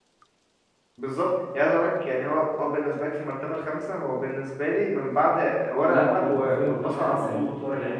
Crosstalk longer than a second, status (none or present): present